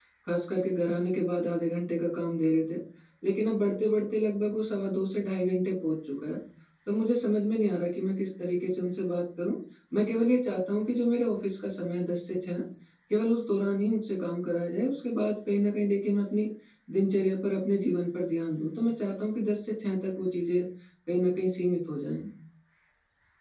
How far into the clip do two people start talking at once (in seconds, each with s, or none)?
none